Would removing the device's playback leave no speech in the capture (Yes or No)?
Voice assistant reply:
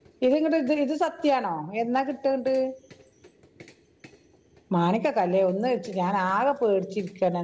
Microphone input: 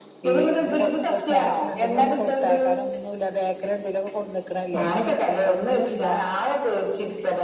No